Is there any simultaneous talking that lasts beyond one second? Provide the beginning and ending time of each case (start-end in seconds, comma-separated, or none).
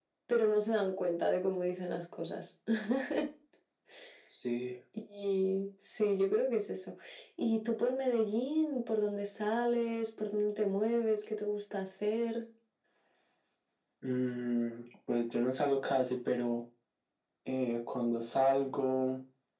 none